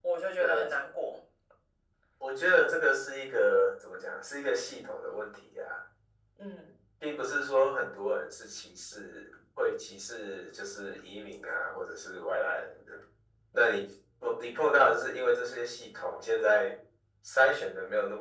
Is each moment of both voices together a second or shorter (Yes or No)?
Yes